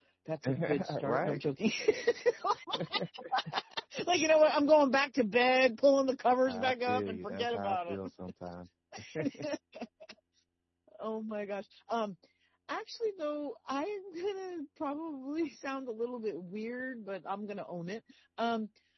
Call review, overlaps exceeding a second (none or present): present